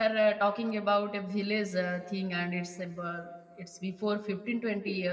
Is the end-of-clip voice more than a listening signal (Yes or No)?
No